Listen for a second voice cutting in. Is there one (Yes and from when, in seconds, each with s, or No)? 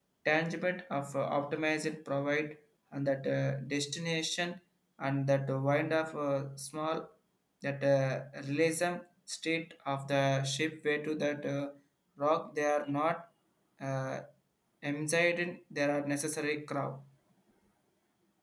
No